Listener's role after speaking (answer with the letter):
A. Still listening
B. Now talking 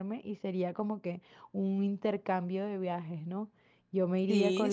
A